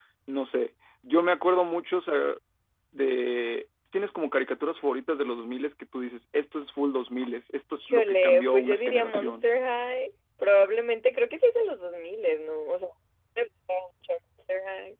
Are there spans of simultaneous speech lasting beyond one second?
Yes, from 7.8 s

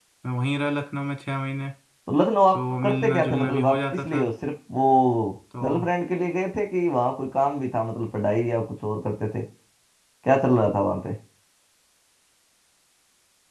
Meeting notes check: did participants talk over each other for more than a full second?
Yes, from 2.5 s

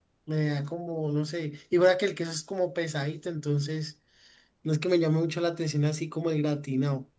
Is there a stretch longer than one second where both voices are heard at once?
No

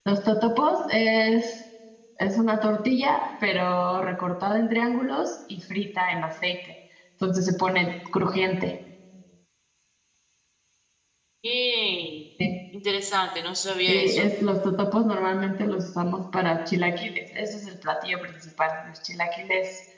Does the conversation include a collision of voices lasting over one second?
No

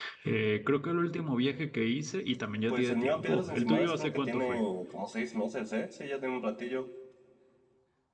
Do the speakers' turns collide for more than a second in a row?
Yes, from 2.7 s

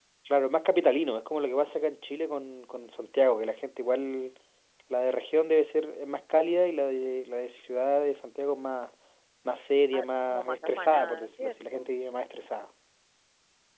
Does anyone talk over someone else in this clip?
Yes, from 9.9 s

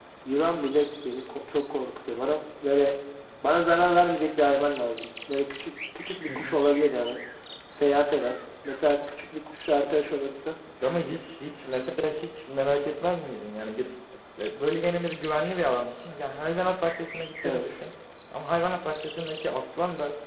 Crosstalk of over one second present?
No

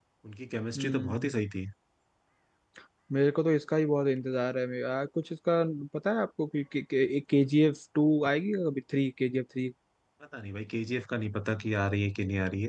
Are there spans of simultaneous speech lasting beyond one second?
No

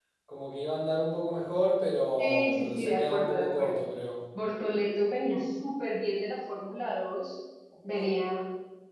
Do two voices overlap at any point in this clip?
Yes, from 2.2 s

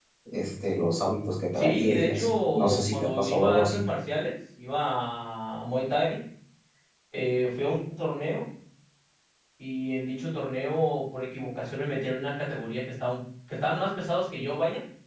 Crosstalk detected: Yes, from 1.6 s

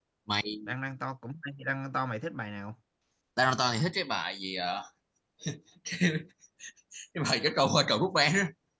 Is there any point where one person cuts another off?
No

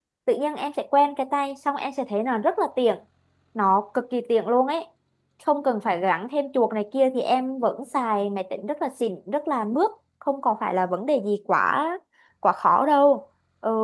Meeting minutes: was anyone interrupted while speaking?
No

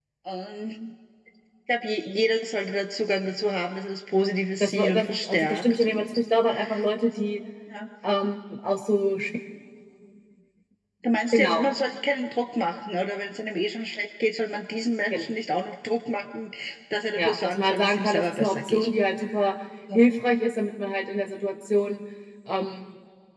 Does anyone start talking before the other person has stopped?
Yes, from 4.6 s

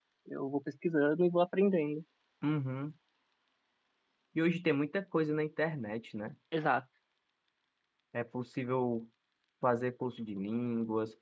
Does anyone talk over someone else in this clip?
No

